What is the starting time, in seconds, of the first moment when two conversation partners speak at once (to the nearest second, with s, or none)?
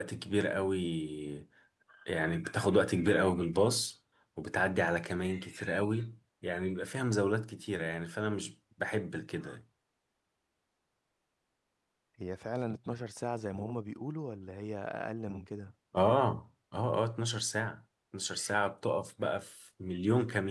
none